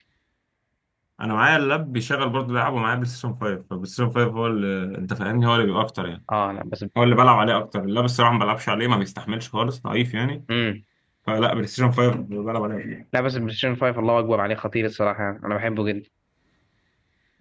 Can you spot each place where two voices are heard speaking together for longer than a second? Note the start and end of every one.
none

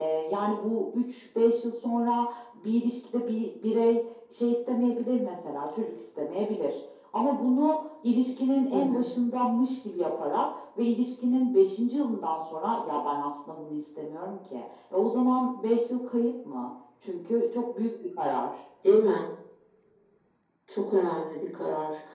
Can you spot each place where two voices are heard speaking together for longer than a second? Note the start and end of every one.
none

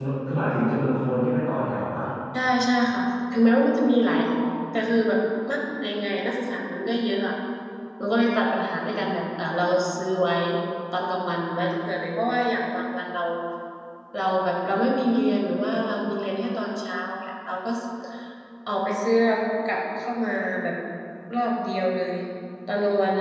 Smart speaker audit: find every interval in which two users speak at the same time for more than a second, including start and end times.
none

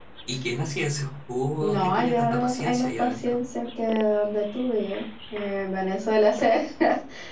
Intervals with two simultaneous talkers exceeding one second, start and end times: 1.6-3.4

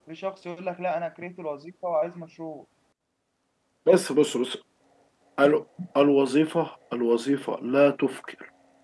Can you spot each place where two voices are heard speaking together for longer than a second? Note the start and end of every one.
none

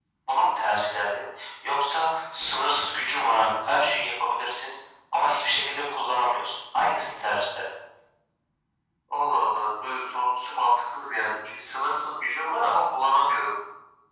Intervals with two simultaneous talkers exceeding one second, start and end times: none

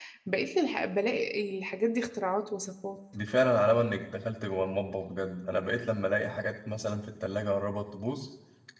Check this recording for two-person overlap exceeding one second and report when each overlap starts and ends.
none

